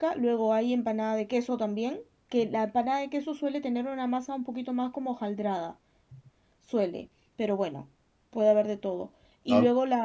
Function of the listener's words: listening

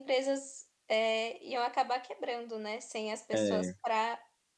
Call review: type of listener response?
listening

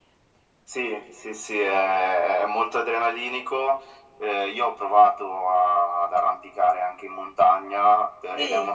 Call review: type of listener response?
listening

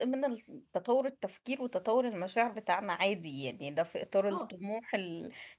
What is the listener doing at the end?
listening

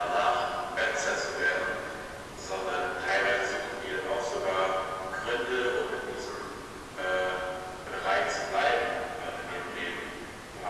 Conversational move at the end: listening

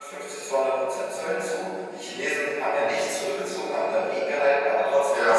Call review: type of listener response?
listening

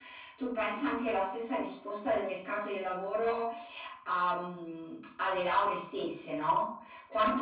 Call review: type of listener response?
listening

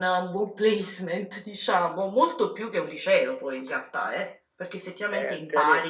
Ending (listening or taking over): taking over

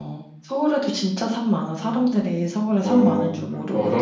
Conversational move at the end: taking over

